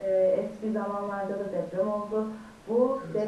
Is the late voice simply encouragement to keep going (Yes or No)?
Yes